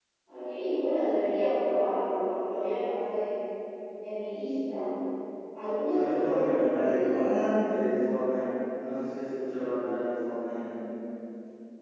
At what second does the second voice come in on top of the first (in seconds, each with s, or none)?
5.9 s